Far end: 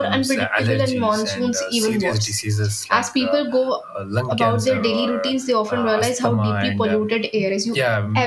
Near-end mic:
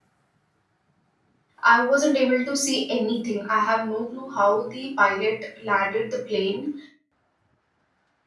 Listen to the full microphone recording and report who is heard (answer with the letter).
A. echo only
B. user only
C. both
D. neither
B